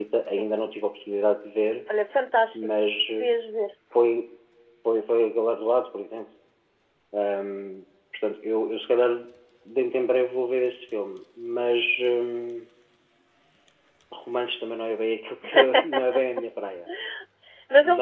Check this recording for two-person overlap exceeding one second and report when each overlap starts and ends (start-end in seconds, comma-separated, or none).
none